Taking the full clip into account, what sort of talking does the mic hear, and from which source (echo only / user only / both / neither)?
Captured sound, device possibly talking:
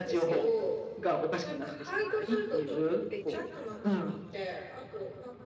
both